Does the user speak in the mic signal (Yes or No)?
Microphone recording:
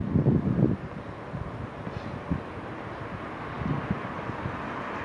No